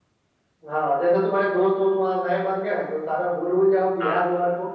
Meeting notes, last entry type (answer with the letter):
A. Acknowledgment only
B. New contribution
A